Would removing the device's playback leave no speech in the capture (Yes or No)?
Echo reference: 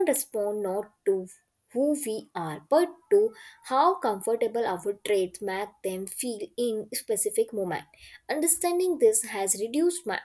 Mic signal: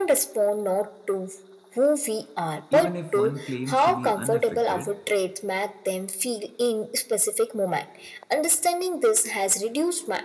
No